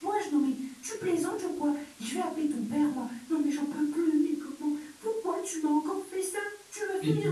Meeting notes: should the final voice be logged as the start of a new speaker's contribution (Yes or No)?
Yes